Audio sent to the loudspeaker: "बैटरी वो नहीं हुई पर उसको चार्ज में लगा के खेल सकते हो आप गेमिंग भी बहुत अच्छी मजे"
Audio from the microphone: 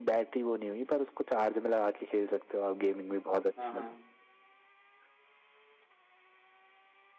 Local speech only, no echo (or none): हाँ हाँ